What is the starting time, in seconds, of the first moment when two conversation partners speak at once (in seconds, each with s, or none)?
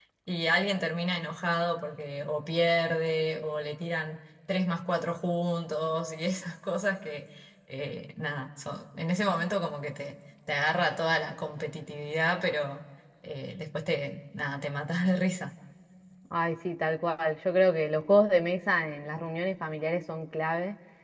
none